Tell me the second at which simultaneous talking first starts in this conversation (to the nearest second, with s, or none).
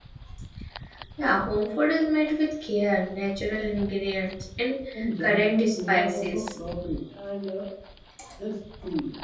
5 s